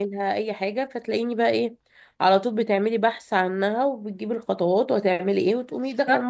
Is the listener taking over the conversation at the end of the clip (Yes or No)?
Yes